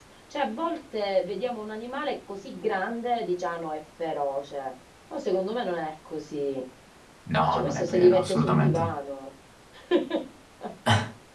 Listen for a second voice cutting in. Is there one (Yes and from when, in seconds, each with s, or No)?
Yes, from 7.5 s